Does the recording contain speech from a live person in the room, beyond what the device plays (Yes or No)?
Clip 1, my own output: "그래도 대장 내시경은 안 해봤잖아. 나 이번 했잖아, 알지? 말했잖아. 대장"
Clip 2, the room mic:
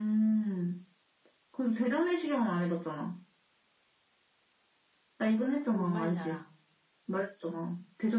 Yes